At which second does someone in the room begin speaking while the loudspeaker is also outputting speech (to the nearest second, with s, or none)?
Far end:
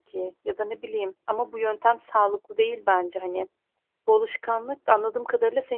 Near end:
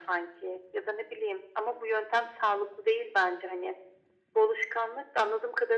none